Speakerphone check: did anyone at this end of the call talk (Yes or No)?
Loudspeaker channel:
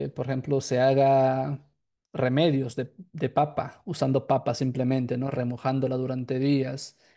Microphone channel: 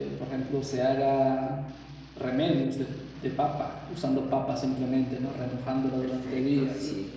Yes